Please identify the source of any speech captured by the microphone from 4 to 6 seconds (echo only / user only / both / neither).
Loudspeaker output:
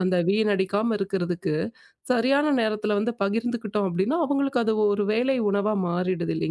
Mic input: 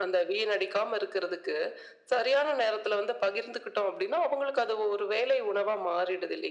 echo only